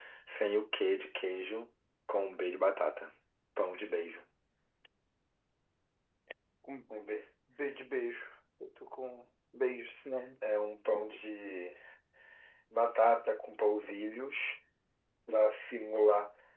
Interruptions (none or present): none